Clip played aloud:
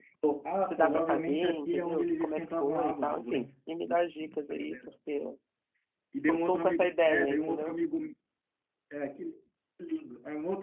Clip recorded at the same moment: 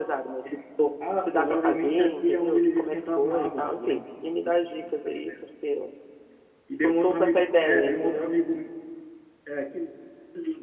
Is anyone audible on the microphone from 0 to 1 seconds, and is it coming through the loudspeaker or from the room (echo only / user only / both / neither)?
echo only